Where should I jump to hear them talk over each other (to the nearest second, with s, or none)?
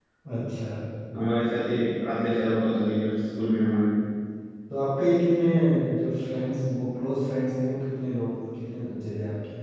none